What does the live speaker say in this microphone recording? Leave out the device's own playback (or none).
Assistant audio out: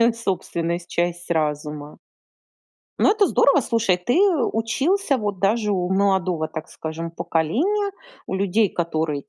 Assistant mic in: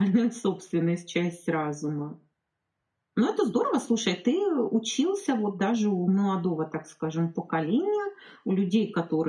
none